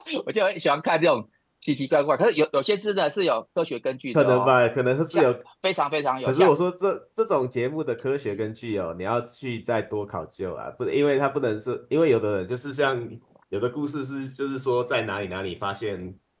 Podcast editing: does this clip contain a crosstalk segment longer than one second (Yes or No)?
No